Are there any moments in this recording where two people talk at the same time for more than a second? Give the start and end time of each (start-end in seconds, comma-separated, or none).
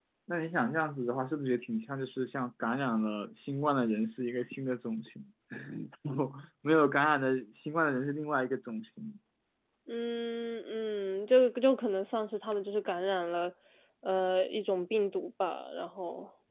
none